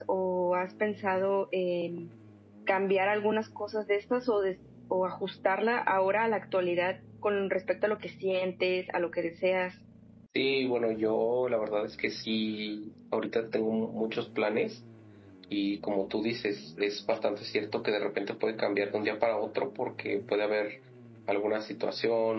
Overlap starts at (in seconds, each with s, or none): none